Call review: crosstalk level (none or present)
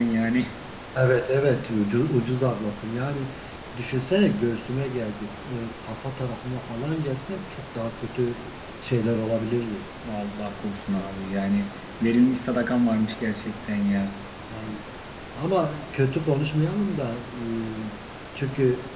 none